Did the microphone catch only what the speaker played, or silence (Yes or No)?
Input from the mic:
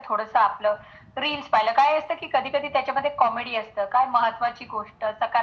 Yes